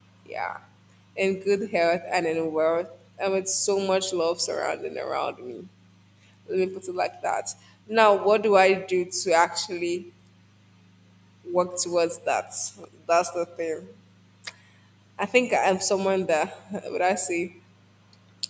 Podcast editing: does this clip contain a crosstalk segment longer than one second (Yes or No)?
No